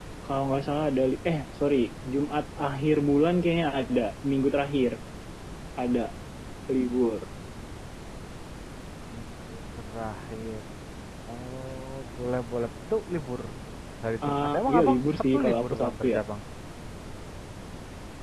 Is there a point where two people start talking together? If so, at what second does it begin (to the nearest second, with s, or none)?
14 s